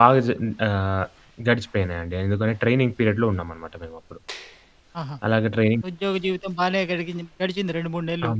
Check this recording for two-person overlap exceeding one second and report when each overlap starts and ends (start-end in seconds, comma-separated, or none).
none